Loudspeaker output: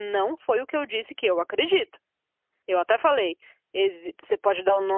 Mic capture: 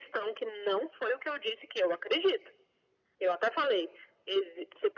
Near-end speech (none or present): none